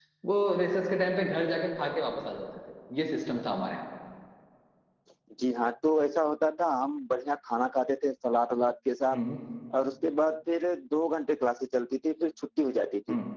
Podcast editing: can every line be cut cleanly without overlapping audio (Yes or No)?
Yes